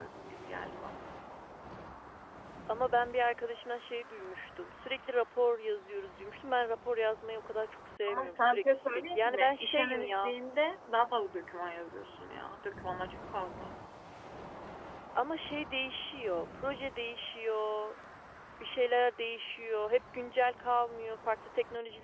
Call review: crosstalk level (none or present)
present